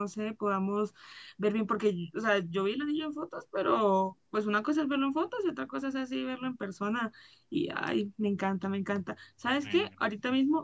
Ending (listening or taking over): listening